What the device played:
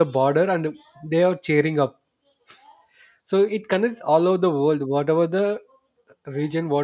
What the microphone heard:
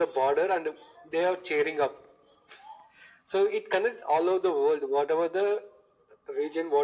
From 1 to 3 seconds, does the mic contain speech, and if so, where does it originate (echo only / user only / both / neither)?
echo only